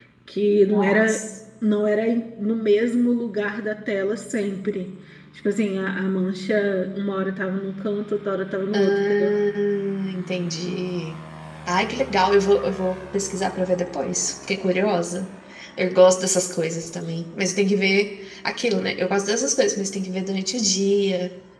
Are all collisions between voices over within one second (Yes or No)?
Yes